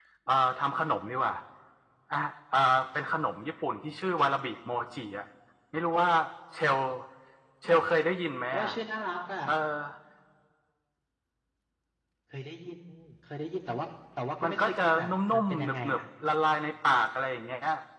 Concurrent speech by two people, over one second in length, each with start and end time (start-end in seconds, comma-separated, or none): 14.4-16.0